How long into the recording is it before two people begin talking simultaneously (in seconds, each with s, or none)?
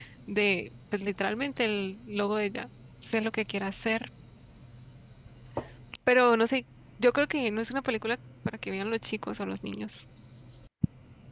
none